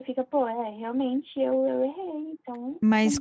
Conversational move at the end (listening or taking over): taking over